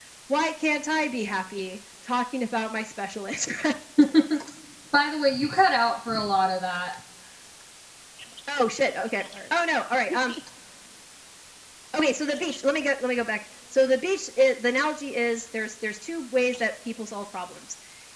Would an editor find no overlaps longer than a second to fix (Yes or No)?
Yes